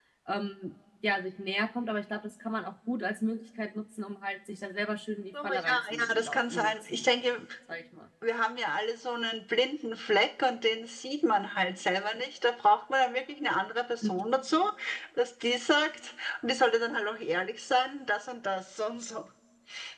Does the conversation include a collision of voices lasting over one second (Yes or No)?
Yes